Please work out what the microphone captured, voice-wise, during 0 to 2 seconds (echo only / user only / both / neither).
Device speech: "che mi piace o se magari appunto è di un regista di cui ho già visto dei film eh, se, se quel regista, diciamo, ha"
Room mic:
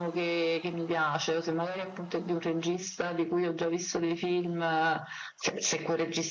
echo only